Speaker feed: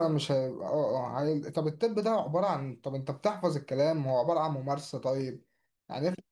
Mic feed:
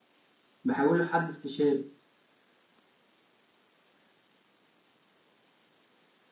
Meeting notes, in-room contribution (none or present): present